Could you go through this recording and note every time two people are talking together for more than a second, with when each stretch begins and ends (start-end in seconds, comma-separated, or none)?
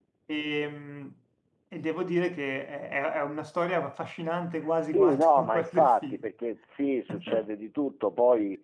4.8-6.3